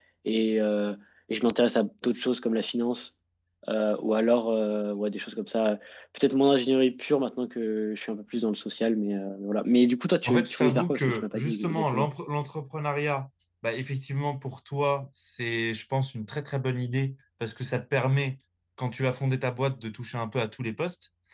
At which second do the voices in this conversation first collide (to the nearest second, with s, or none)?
10 s